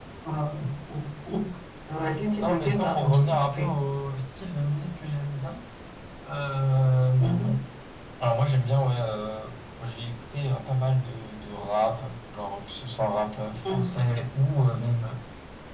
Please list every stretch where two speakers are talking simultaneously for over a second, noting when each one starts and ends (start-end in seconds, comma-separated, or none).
2.4-3.7